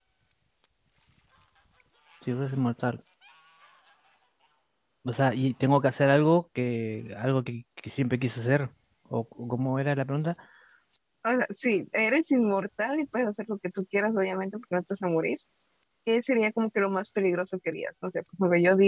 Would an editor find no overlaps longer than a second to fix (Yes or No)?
Yes